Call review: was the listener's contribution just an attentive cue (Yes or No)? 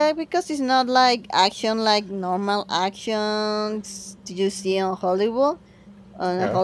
Yes